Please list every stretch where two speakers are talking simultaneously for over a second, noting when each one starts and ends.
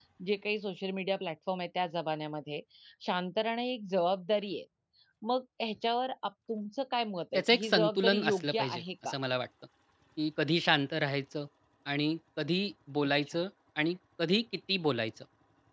7.3-9.1

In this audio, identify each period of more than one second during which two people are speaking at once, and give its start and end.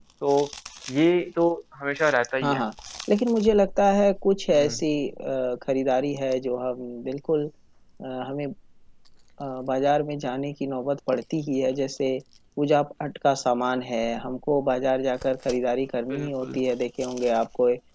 none

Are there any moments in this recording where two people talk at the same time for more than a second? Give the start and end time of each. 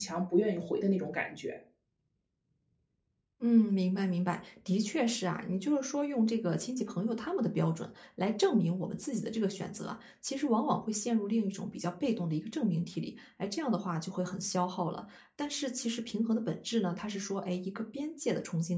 none

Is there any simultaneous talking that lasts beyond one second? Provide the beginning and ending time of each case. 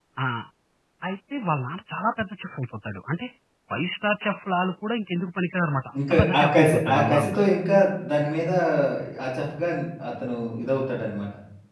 6.1-7.3

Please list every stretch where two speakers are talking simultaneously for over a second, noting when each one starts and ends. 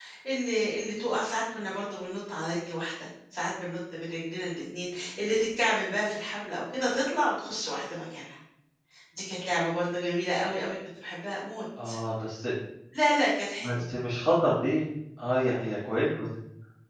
none

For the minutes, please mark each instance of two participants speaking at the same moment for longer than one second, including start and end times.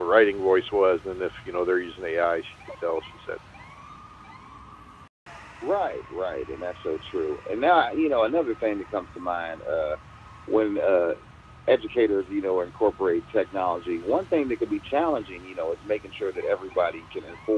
none

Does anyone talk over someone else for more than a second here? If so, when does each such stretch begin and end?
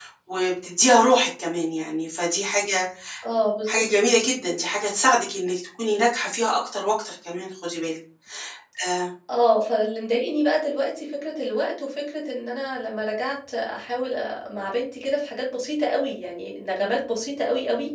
none

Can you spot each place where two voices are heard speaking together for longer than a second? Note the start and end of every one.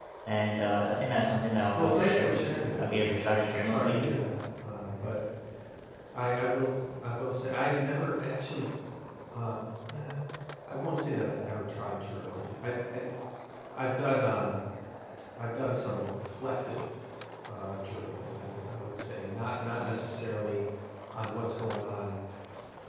1.8-4.1

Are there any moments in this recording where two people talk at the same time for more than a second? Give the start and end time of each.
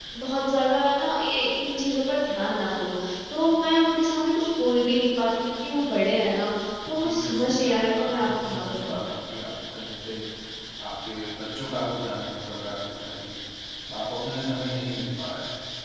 6.9-8.9

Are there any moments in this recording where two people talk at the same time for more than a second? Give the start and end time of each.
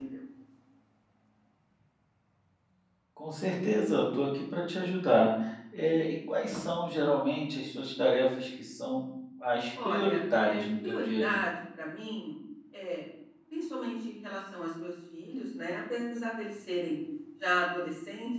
9.8-11.5

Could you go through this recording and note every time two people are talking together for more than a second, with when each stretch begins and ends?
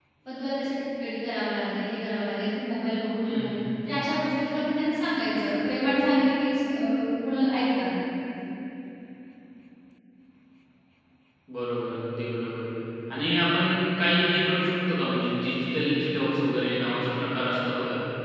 none

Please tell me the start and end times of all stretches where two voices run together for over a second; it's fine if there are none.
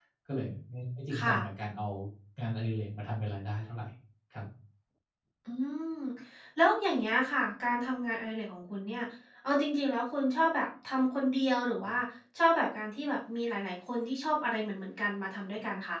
none

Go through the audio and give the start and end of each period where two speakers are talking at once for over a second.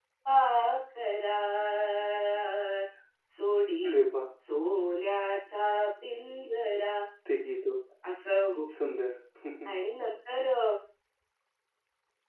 none

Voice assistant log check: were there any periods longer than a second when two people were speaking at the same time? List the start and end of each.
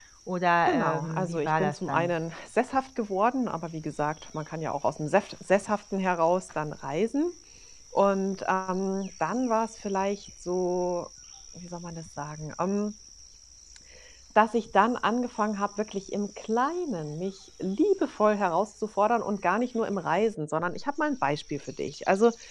0.6-2.1

